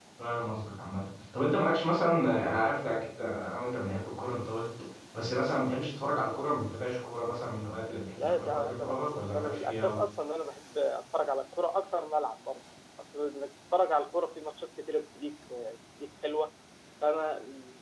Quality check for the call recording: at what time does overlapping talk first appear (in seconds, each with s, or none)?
8.2 s